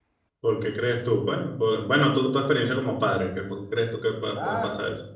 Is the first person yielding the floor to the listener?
Yes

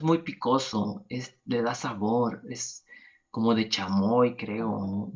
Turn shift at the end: Yes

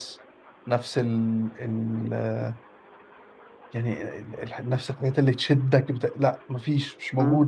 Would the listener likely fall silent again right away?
No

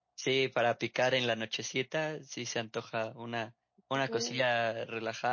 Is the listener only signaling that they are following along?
Yes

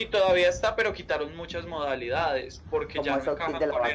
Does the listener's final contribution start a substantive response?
Yes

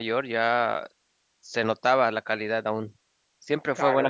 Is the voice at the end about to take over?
Yes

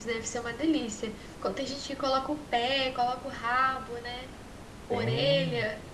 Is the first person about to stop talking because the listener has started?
Yes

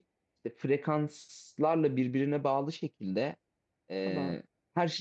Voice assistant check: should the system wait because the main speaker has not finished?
Yes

